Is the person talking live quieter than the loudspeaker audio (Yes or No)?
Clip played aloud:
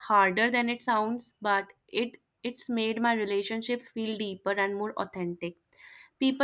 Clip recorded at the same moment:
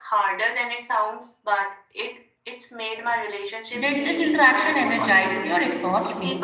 No